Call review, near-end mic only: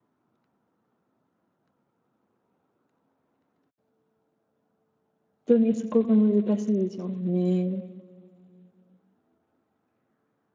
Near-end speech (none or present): present